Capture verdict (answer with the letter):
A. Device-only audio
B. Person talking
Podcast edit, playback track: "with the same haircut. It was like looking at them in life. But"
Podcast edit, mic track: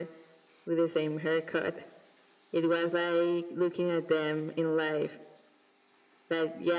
A